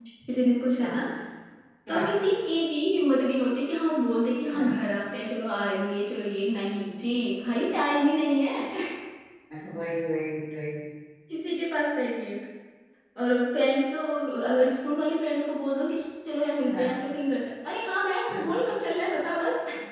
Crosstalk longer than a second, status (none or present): none